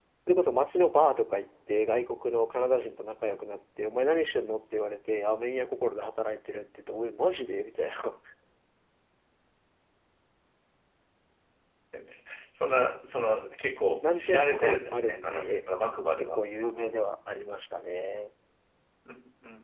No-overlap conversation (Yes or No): No